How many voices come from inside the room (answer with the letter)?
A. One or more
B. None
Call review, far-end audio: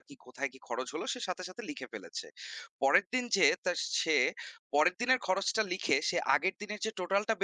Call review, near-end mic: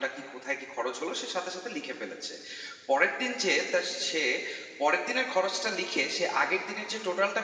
B